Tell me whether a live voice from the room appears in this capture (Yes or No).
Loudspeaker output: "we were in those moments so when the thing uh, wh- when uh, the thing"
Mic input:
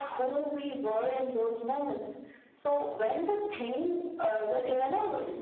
No